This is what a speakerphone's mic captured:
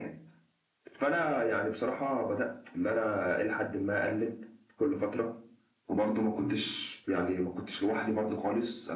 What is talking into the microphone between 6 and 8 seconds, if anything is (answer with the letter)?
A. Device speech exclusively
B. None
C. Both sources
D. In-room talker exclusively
A